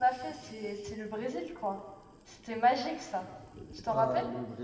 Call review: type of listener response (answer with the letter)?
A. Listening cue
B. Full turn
B